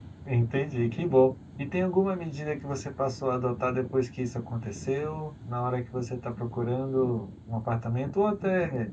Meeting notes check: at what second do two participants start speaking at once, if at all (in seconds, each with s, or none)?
none